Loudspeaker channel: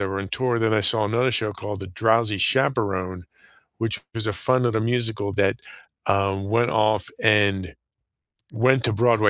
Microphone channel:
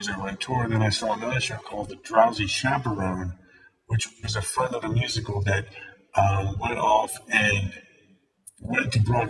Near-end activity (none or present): none